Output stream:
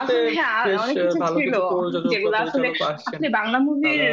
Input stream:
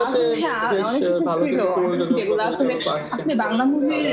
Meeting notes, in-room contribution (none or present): present